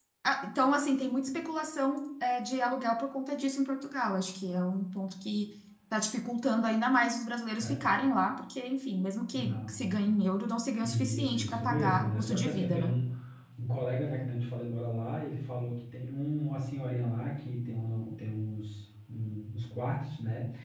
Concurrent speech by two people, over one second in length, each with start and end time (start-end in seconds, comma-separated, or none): 10.8-12.9